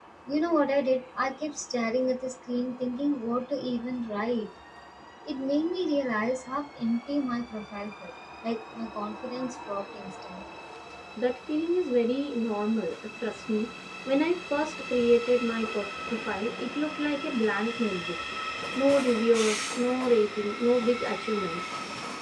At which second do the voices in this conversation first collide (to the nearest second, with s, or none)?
none